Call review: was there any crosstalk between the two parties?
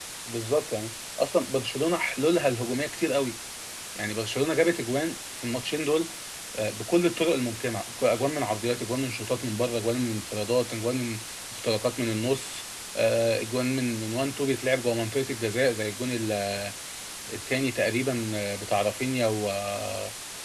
No

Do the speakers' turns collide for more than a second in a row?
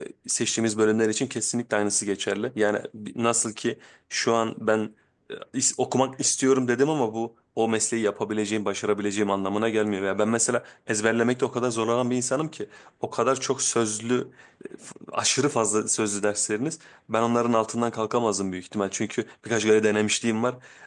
No

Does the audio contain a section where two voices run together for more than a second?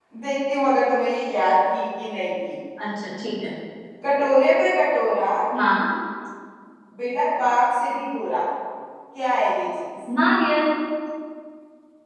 No

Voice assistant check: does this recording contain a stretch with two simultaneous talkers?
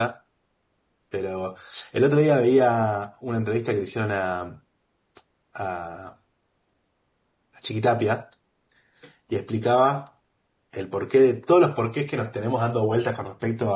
No

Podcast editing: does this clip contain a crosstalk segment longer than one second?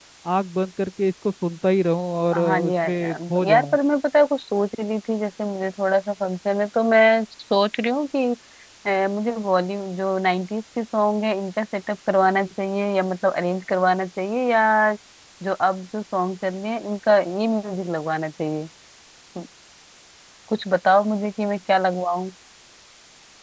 Yes, from 2.3 s

